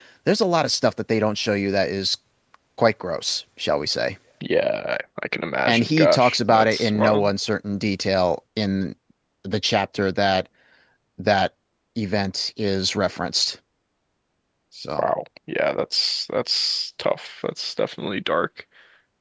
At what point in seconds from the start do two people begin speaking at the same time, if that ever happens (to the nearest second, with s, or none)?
6 s